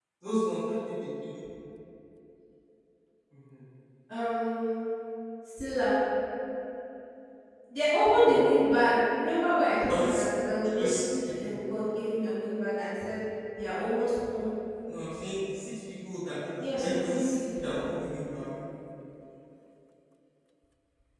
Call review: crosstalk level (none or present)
present